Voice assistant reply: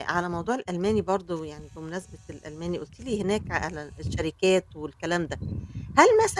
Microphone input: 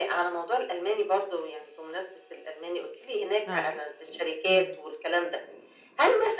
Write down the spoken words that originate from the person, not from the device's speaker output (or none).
آه، امم.